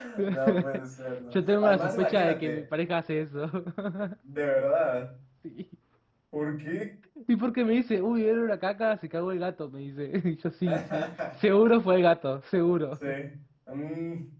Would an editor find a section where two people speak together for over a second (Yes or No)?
Yes